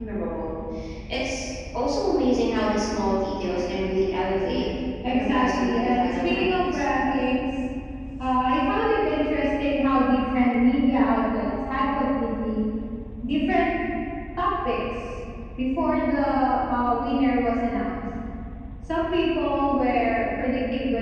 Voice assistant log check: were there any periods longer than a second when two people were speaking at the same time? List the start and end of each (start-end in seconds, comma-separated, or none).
5.1-6.8